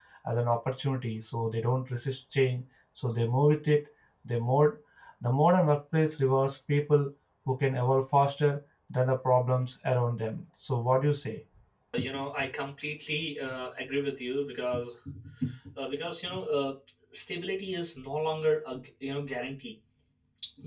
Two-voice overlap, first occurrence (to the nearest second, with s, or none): none